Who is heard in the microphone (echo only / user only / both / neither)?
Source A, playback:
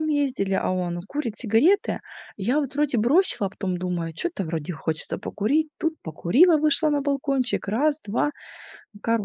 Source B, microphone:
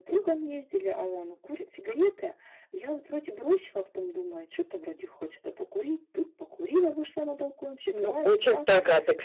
both